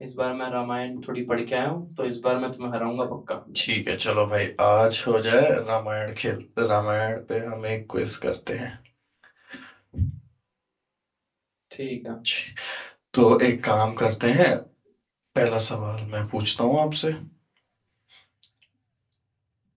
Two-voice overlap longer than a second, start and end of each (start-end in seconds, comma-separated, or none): none